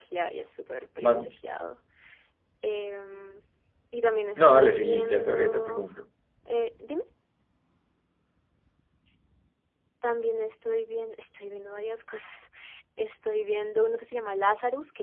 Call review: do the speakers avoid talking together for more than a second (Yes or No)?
No